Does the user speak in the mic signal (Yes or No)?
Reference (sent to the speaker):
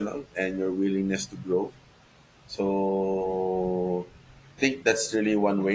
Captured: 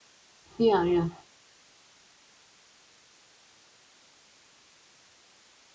Yes